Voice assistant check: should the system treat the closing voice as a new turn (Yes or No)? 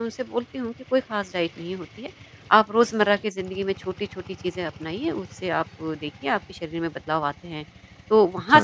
No